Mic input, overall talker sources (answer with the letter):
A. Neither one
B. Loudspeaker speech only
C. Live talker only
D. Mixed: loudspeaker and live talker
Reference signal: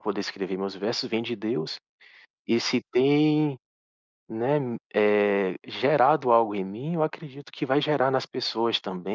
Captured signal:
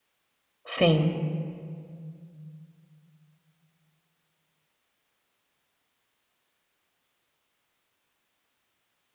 C